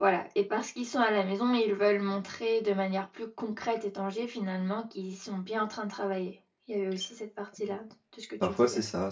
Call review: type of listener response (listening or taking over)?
taking over